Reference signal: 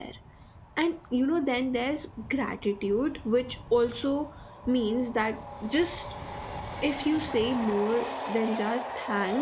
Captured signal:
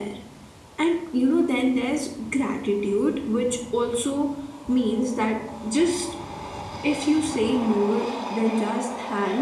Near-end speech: none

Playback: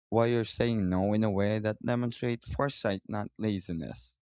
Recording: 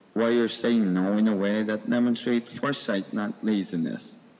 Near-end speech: none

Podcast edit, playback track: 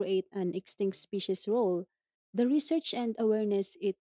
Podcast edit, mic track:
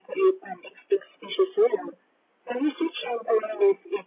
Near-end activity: none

